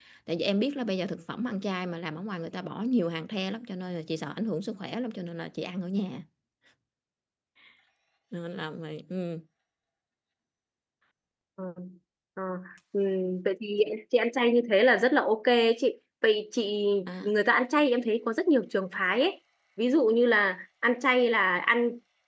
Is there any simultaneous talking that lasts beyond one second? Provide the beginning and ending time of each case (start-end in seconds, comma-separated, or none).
none